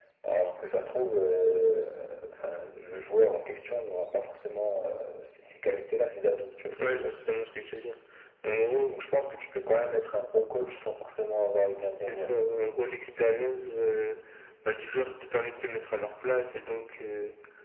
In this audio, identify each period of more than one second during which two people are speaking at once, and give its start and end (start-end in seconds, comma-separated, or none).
none